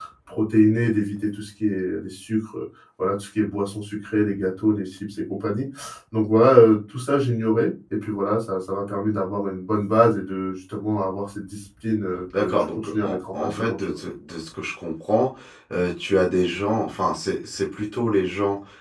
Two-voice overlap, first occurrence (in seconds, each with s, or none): 12.3 s